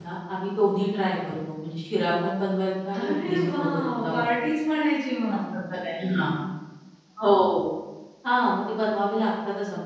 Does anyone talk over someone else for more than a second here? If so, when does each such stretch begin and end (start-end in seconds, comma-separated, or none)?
2.9-4.2